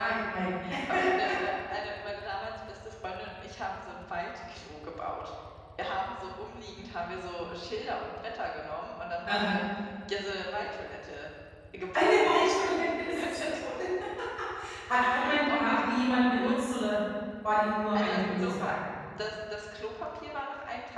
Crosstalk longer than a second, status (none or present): present